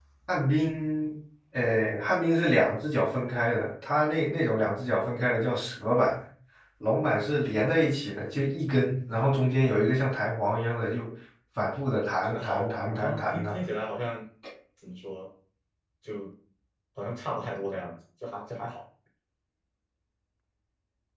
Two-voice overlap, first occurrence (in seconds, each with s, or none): 12.2 s